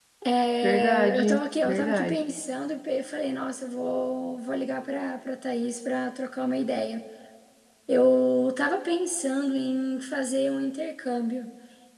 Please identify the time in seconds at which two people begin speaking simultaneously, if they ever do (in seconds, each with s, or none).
0.6 s